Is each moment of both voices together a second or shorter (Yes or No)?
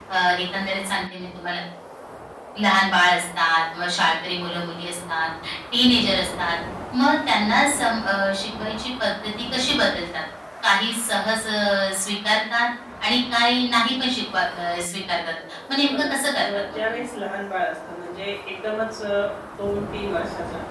No